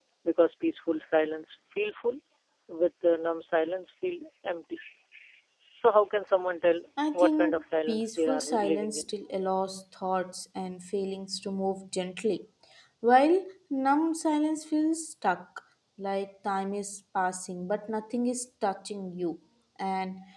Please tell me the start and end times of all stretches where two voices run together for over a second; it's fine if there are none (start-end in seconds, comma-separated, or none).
7.1-9.2